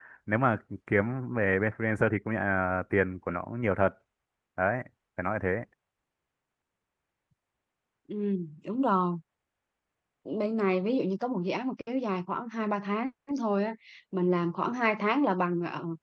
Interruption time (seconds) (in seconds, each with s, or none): none